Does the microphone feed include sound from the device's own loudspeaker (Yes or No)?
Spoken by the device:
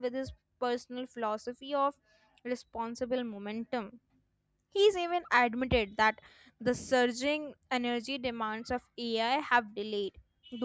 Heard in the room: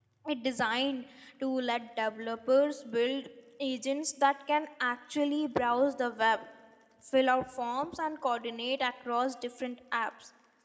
No